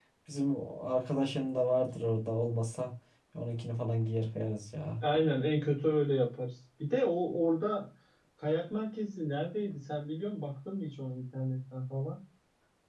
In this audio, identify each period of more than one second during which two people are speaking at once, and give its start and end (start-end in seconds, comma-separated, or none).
none